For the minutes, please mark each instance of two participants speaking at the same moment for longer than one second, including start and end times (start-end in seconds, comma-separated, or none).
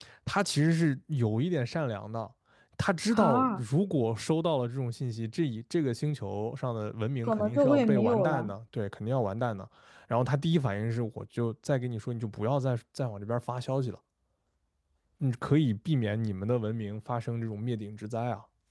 7.2-8.5